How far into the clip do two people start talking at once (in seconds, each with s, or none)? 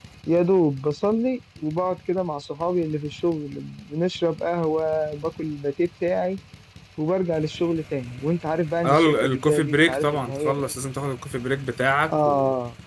8.8 s